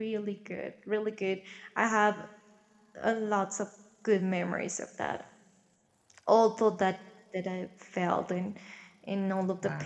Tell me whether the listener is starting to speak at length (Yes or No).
No